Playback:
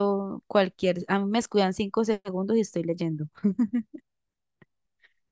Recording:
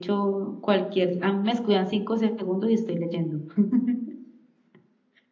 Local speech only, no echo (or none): none